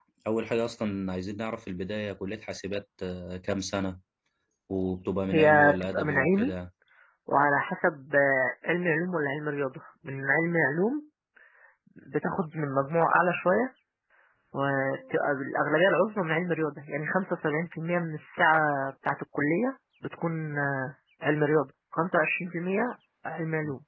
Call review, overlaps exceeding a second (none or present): present